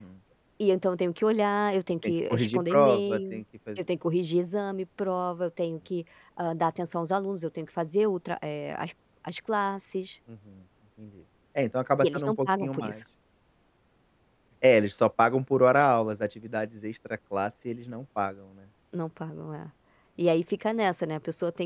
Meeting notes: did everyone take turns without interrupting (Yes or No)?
No